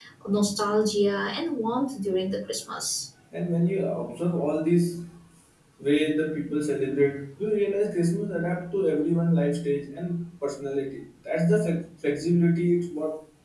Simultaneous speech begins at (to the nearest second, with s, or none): none